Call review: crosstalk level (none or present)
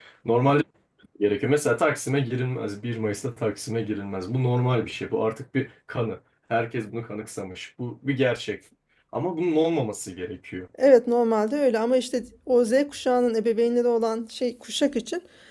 none